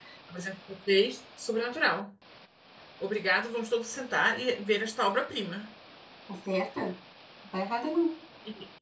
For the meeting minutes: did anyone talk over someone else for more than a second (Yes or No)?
No